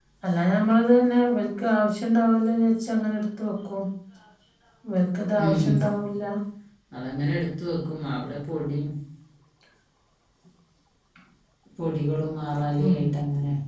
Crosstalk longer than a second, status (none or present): none